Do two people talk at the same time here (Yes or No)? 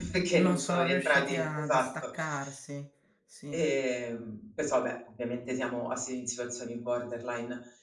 Yes